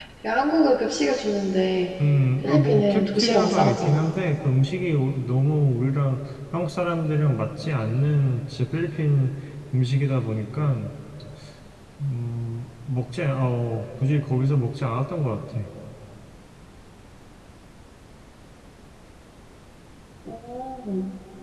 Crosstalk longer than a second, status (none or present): present